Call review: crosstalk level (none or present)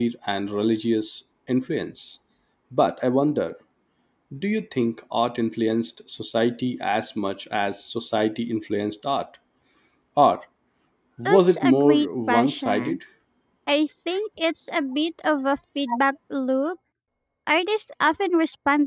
present